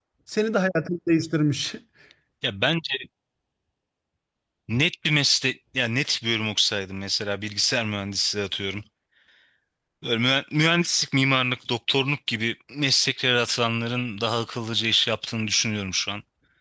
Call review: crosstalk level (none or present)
none